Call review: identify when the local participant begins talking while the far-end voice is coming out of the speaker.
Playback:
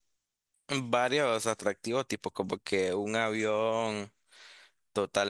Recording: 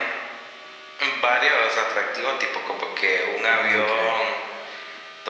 3.6 s

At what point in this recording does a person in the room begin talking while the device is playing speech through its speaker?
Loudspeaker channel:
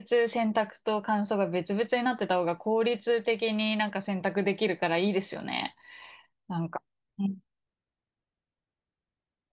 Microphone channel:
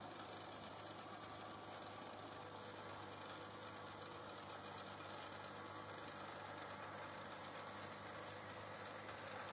none

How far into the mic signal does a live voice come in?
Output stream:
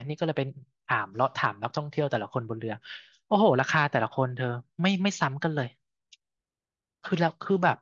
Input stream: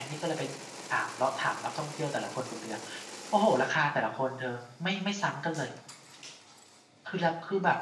none

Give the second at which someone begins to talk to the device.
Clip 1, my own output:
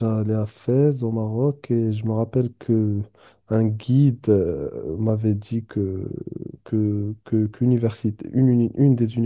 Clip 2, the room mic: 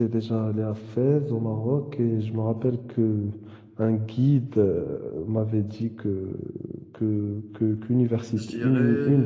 8.3 s

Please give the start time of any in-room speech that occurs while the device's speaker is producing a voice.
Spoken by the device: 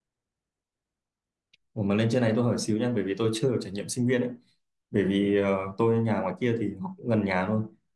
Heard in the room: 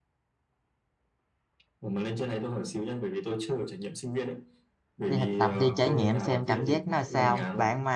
5.1 s

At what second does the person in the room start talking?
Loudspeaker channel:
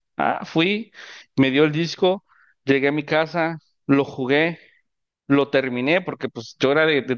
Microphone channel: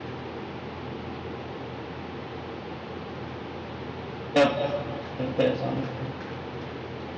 4.3 s

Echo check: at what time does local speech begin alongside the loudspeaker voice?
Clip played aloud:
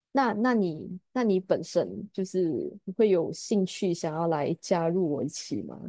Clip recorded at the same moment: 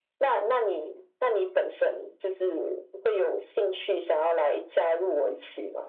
none

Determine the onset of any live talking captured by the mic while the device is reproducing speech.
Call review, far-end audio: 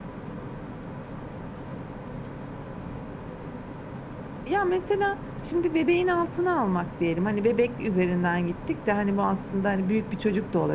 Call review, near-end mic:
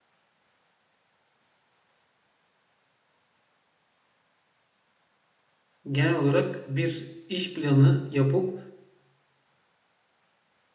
5.9 s

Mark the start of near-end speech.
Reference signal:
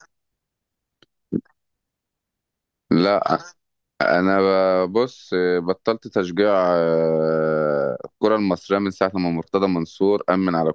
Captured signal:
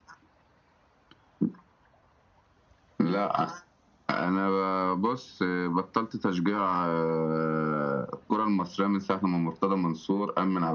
none

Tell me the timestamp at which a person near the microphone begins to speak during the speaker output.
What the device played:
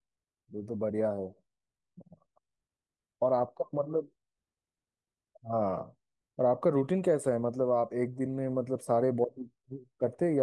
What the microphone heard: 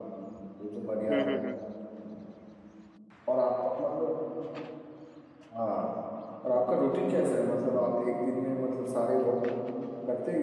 1.1 s

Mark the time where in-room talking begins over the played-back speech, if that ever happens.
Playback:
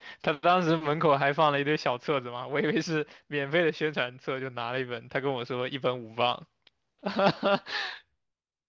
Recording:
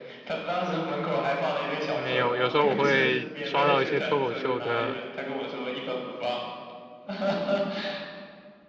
1.9 s

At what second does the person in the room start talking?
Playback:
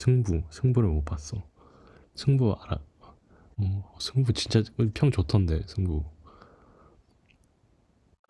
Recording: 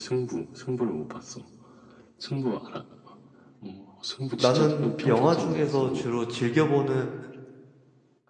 4.4 s

